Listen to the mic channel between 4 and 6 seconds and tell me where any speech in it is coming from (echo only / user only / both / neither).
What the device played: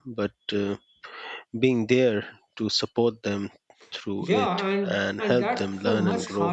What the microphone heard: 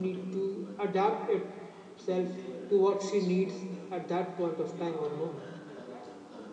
both